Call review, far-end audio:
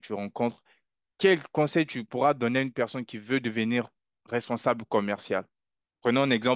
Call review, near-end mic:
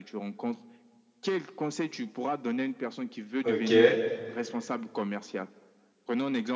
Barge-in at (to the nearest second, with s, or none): 3 s